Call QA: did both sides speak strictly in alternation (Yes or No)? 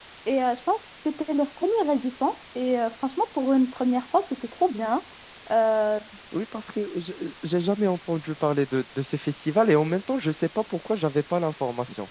Yes